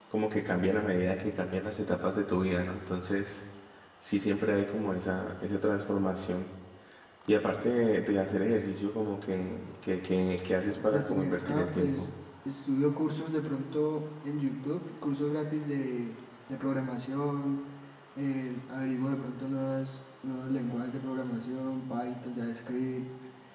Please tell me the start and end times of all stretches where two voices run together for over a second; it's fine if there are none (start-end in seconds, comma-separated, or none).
10.7-12.1